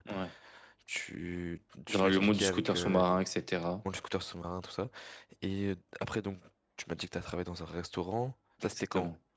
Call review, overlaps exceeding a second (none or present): present